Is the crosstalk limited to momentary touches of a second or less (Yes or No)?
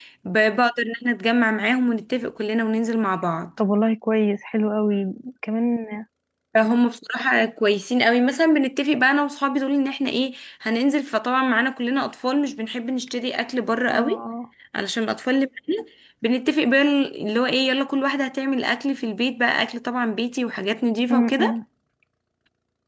Yes